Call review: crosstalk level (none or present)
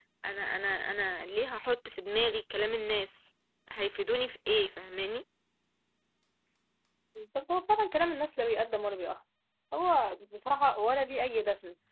none